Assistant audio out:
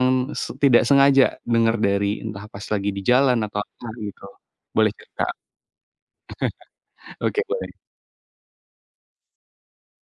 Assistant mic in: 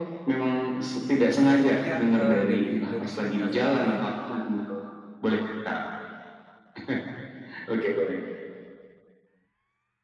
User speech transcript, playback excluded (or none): Ya, eee, dari dari Furinkazan ini,